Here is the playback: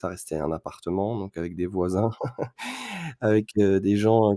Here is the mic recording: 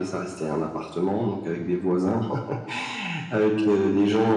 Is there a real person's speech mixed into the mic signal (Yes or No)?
No